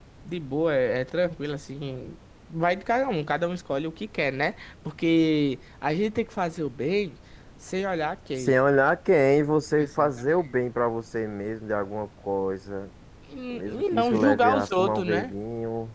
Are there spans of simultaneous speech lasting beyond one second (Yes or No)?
Yes